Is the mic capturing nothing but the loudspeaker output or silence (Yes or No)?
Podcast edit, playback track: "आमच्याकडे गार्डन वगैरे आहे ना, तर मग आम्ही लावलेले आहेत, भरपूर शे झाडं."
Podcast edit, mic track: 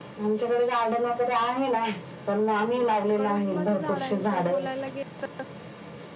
No